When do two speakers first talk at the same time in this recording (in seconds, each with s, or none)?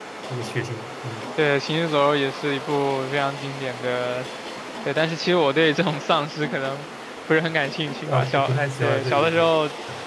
8.1 s